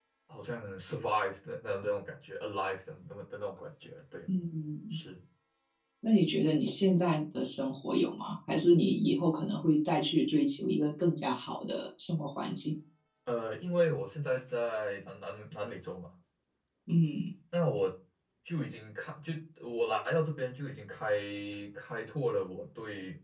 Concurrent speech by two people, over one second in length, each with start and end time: none

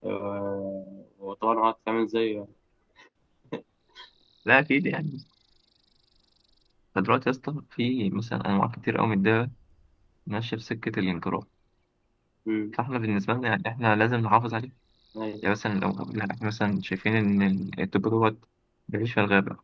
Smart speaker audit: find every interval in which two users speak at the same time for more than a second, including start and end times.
none

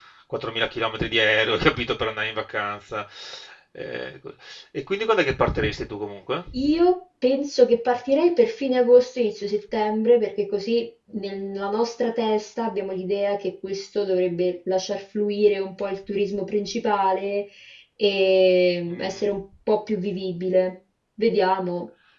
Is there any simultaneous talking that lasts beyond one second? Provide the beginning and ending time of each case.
none

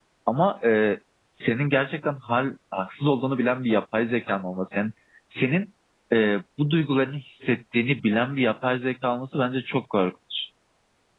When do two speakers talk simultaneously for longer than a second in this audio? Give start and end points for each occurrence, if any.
none

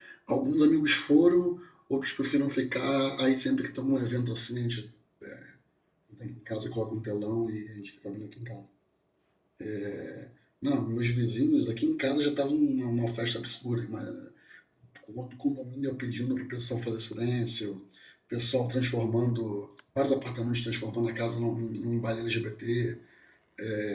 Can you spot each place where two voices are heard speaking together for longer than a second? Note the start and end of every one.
none

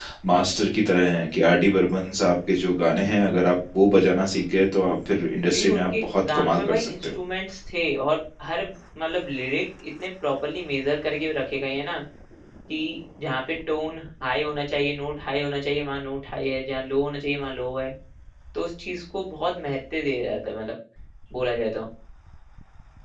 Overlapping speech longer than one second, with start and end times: 5.5-7.1

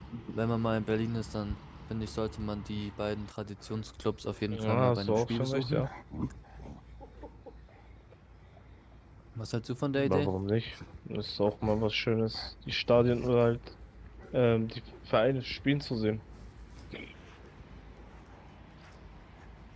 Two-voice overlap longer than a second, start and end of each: 4.5-5.8

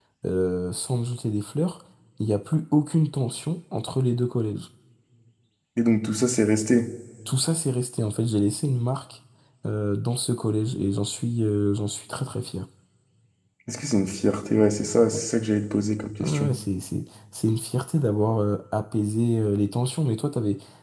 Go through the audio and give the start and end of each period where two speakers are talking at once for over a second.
none

